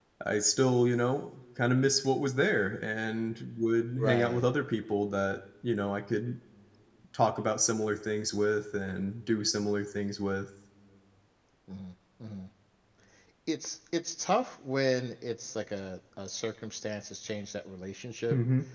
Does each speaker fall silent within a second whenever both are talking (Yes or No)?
Yes